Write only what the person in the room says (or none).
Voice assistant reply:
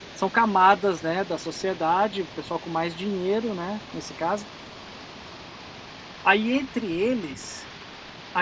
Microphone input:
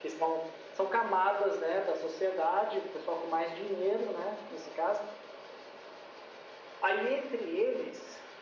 none